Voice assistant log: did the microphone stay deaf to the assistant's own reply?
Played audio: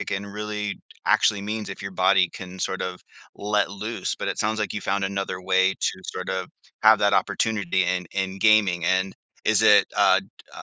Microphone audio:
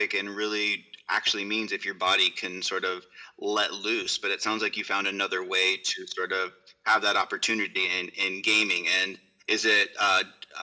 No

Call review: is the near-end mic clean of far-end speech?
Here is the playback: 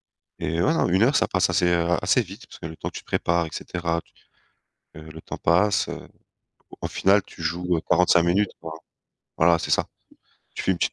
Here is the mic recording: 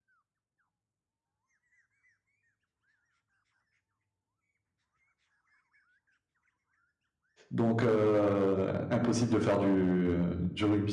Yes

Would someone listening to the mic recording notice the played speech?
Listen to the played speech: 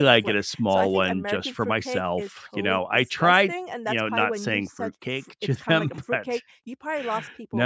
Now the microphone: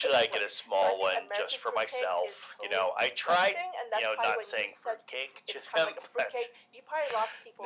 Yes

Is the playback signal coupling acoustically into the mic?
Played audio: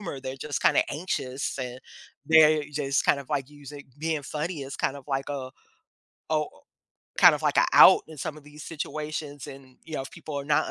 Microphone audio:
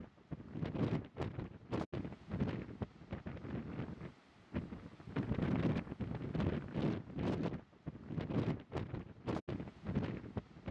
No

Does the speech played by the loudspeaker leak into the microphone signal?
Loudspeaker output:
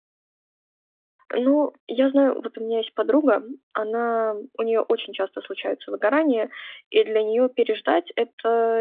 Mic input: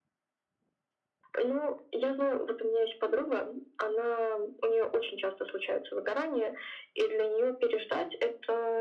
Yes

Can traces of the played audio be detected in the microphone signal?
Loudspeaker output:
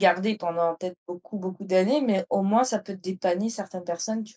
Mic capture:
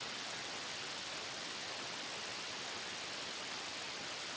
No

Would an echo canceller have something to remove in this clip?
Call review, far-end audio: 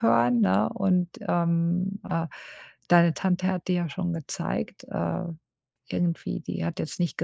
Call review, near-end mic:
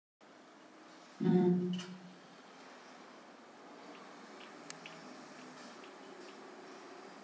No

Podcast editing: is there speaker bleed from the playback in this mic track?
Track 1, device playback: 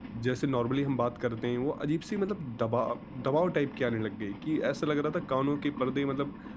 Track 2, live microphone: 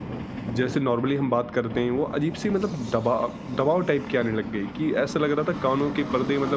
Yes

